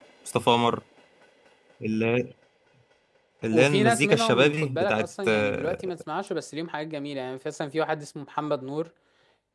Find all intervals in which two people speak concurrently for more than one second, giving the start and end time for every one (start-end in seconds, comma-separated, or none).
3.5-5.8